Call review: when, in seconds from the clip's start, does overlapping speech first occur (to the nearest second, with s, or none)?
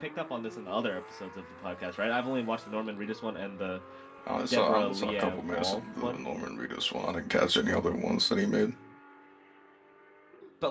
4 s